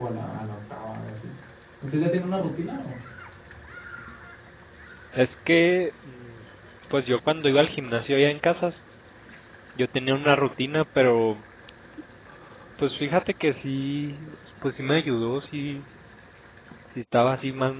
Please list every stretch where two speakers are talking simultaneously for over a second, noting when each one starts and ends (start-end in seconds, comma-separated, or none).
none